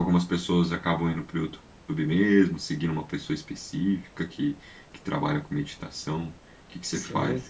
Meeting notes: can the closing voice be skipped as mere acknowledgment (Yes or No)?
No